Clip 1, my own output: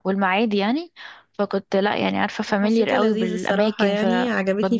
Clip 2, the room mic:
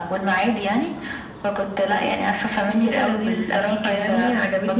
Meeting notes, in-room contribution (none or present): none